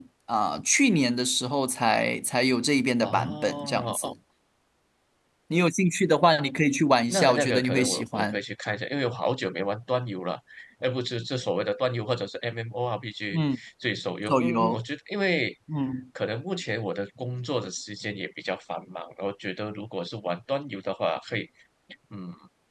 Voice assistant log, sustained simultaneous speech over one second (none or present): present